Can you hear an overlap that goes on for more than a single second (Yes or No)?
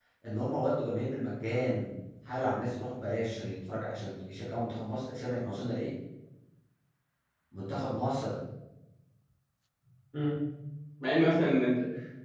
No